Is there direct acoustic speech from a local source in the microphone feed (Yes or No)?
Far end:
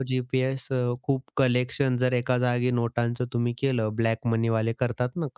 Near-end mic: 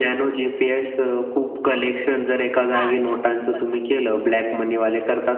Yes